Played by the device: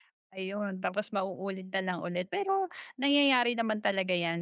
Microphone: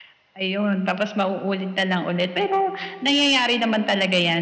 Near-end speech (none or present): none